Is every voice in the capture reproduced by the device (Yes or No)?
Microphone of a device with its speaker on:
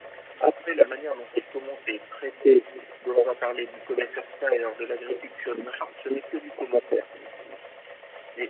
Yes